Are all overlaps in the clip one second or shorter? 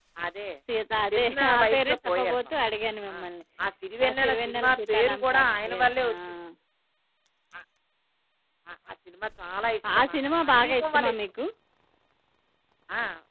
No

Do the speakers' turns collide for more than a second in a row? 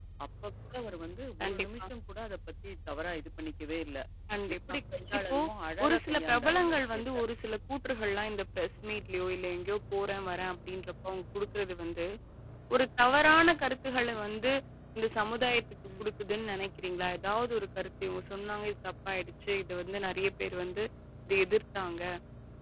Yes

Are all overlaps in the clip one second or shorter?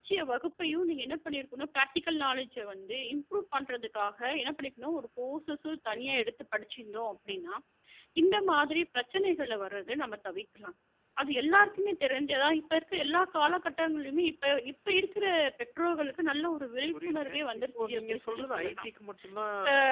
No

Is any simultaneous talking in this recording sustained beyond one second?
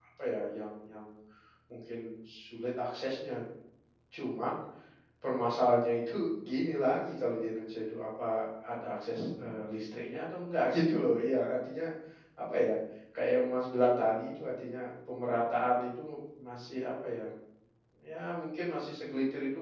No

